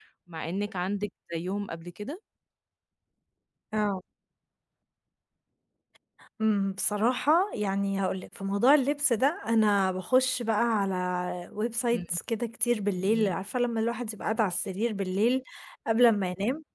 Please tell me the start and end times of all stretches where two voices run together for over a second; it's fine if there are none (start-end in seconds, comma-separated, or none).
none